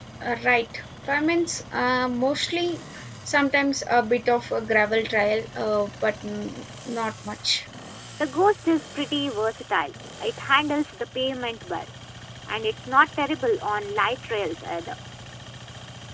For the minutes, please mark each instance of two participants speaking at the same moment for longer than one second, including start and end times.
none

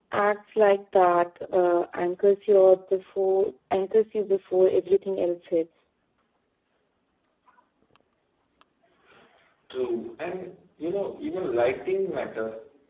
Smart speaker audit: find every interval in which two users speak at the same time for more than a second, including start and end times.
none

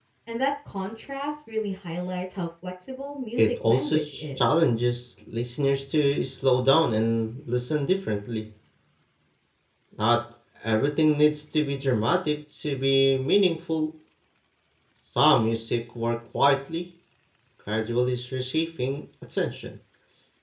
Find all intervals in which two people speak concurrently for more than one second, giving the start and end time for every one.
3.4-4.7

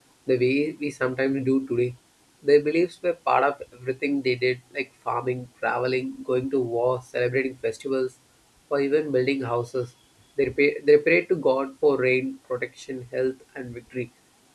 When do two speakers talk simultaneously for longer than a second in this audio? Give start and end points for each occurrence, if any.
none

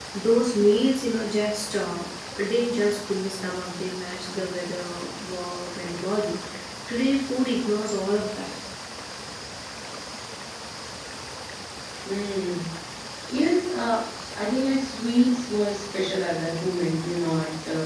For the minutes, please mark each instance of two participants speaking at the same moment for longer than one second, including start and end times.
none

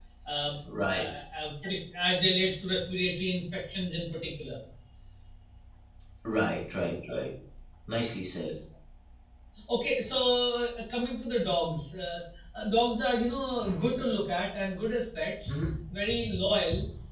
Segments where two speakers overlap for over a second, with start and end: none

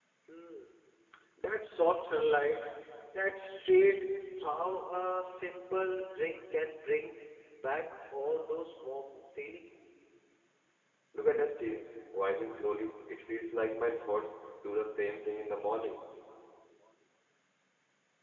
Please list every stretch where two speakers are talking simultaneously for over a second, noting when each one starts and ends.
none

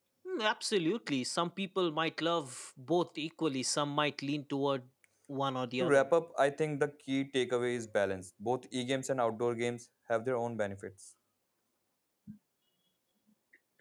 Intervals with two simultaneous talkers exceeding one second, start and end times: none

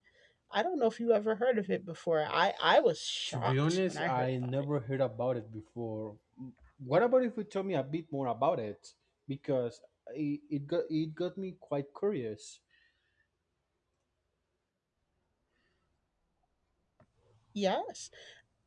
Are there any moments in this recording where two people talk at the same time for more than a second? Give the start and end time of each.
3.3-4.7

